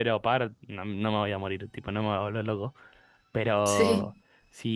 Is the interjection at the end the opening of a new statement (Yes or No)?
No